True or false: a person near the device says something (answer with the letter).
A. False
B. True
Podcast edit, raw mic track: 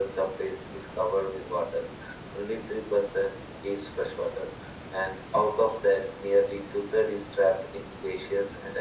A